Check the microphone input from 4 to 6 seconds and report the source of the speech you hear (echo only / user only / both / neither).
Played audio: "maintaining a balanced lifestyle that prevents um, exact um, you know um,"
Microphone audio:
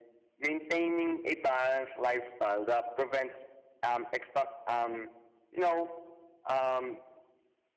echo only